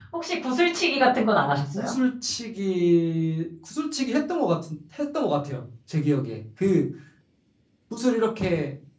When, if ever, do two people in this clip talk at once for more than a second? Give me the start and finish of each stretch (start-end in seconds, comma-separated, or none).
none